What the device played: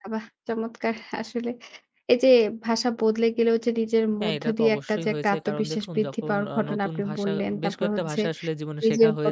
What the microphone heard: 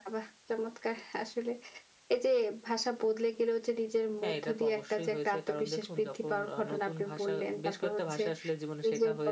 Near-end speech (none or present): none